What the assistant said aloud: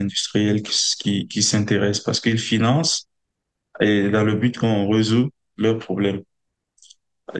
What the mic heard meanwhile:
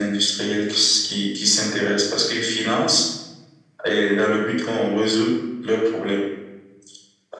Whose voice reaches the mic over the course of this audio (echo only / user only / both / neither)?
echo only